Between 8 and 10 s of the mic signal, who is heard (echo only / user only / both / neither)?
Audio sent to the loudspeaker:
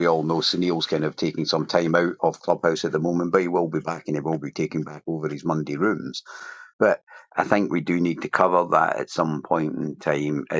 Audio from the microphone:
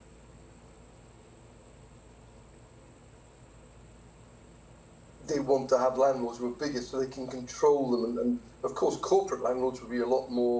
user only